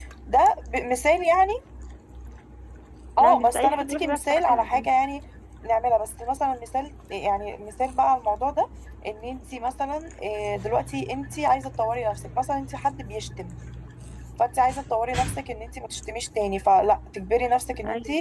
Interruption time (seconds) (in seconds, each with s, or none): 3.2 s